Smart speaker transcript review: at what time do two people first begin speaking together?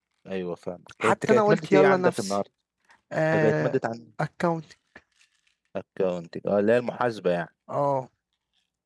1 s

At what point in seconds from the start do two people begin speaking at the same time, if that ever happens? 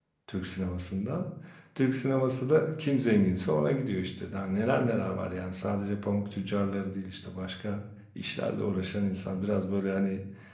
none

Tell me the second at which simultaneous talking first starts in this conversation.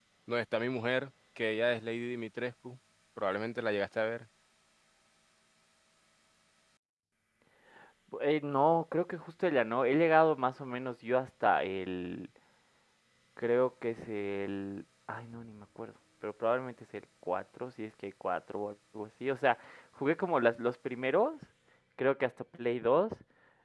none

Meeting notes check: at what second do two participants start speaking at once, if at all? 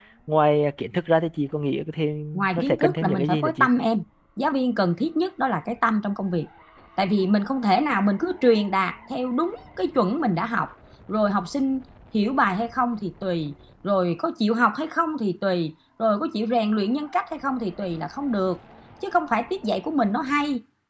2 s

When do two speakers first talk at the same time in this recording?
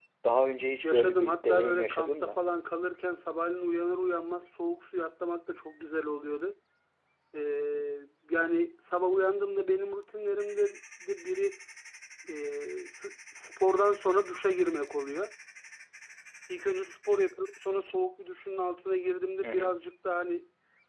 1 s

